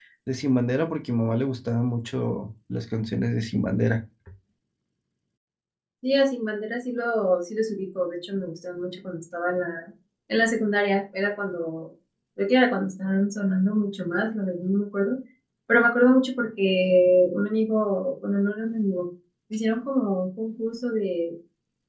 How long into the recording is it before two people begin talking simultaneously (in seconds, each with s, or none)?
none